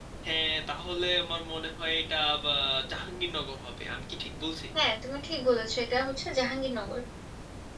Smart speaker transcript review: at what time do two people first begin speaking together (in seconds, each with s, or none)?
none